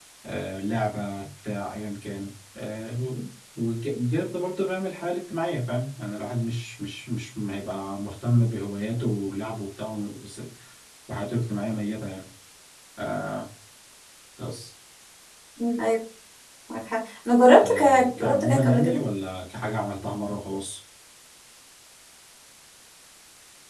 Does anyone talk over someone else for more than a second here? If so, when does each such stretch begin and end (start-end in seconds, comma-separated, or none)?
17.6-19.0